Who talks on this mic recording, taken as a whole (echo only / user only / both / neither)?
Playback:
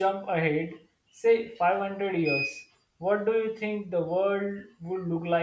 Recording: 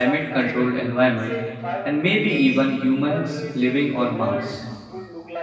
both